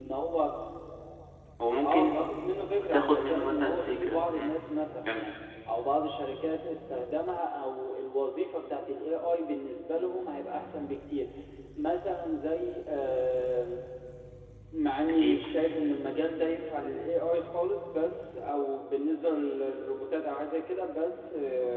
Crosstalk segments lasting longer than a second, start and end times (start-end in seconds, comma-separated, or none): 2.9-4.6